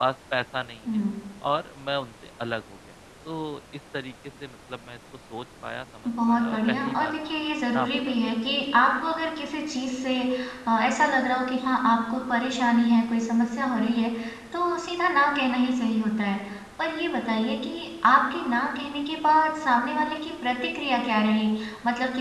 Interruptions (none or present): present